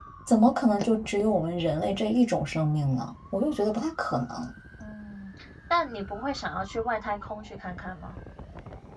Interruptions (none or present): none